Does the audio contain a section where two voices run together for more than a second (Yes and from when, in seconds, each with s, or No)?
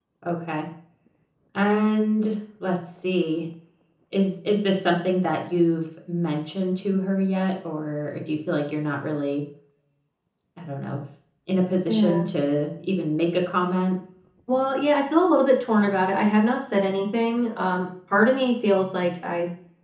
No